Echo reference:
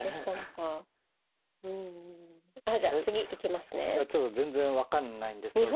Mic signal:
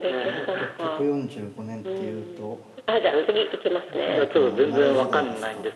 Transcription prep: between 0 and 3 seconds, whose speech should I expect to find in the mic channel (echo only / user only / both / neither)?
both